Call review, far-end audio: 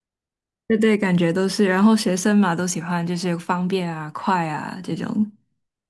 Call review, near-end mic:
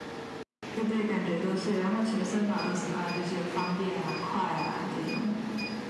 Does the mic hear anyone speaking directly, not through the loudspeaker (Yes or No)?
No